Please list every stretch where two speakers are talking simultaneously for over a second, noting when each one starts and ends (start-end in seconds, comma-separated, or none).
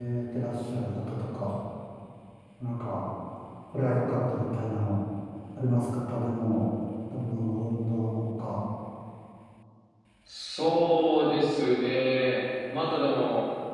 none